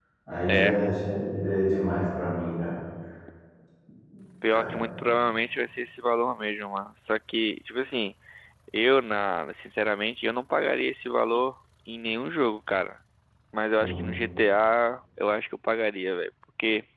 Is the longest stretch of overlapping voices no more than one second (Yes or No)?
Yes